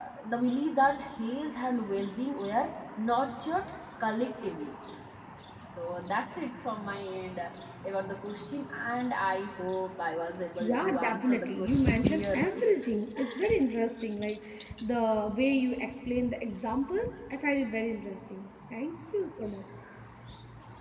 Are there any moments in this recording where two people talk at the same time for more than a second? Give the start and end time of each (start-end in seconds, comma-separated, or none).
10.6-12.7